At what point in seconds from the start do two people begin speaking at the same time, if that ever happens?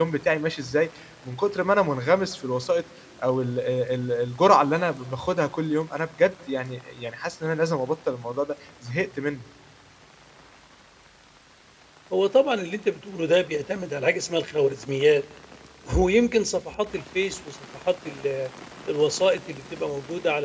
none

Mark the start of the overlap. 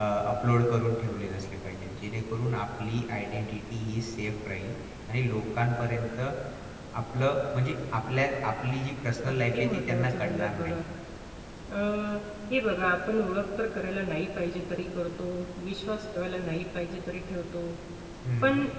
9 s

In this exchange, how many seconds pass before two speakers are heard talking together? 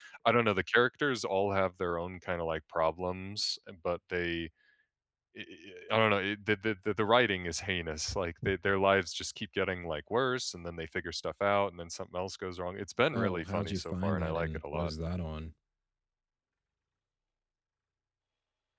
13 s

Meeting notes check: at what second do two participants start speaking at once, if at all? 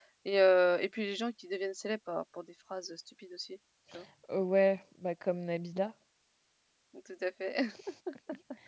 none

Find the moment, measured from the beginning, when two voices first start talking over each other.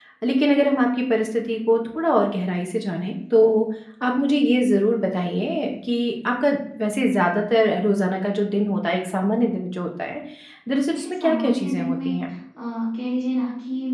11 s

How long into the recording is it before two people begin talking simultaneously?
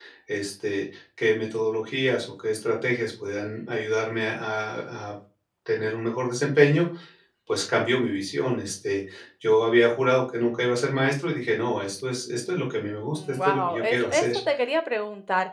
13 s

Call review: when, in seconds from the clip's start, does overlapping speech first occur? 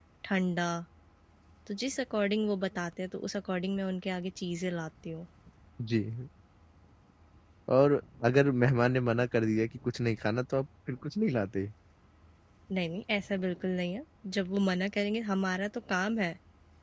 none

